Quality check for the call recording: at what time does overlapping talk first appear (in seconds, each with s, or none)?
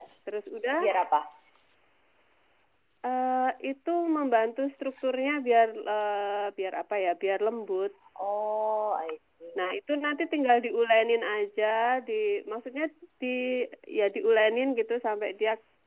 none